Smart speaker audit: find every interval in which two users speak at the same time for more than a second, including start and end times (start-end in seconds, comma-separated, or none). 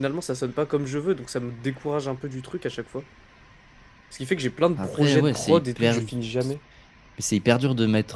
4.8-6.0